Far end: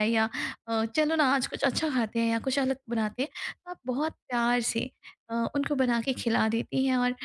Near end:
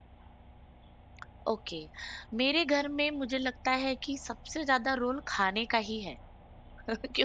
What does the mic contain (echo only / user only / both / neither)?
user only